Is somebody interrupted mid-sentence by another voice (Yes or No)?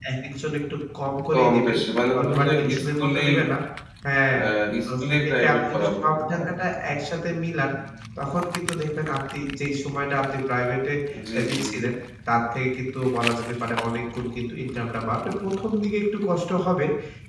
Yes